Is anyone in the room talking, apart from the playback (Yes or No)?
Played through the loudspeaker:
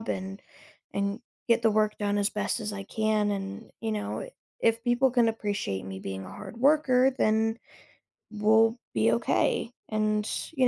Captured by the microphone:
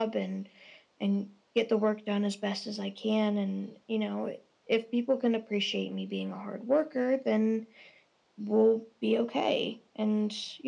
No